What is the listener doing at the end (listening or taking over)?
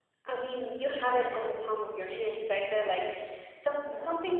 listening